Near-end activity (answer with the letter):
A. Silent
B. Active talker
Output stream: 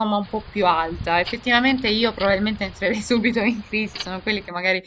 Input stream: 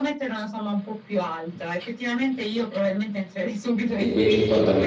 B